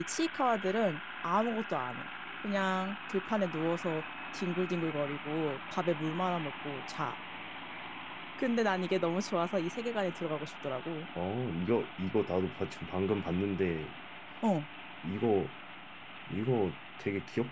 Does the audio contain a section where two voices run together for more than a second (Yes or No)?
No